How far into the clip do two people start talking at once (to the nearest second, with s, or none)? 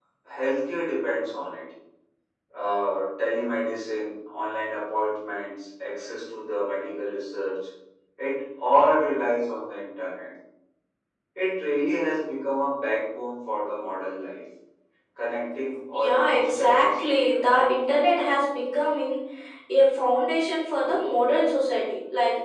16 s